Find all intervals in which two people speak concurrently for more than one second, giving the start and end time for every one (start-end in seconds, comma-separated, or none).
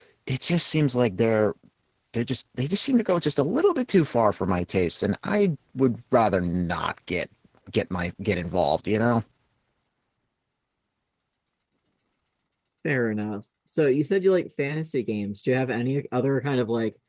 none